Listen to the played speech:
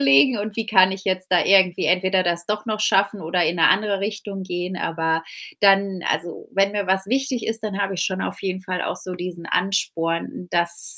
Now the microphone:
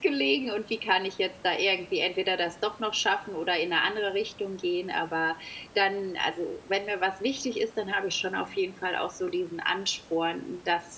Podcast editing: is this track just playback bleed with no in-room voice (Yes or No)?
Yes